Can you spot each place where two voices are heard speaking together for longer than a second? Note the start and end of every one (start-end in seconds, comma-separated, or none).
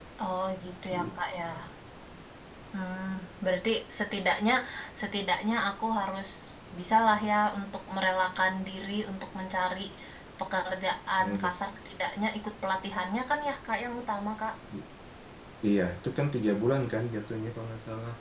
none